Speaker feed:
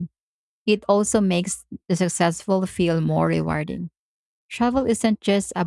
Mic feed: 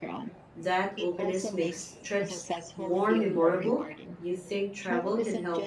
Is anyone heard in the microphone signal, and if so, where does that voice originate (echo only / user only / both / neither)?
both